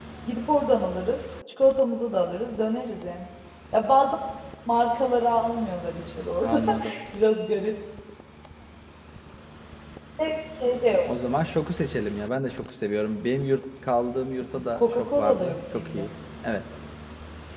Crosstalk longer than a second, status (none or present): present